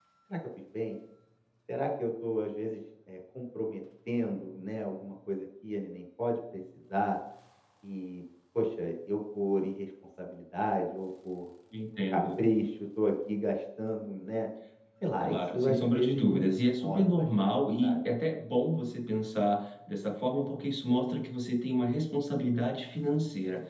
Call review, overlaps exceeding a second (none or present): present